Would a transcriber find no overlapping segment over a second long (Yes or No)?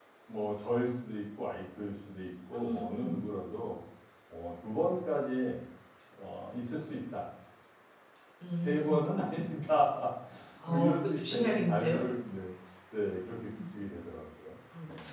No